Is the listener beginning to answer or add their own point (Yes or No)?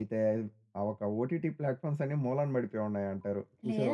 Yes